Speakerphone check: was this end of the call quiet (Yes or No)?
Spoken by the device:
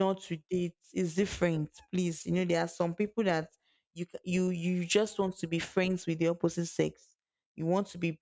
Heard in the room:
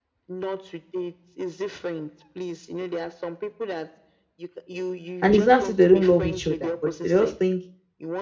No